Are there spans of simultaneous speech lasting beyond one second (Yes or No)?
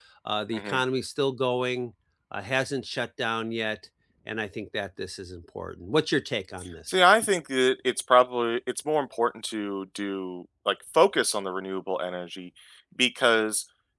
No